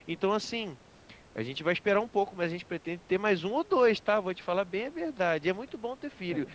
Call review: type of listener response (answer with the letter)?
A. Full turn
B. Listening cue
B